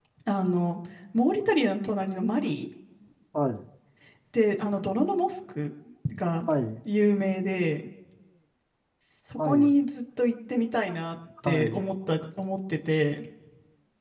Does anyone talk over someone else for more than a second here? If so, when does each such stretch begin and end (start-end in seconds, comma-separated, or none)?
none